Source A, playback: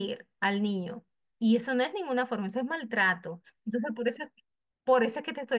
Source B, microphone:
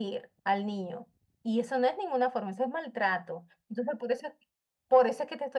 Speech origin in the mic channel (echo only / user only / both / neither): echo only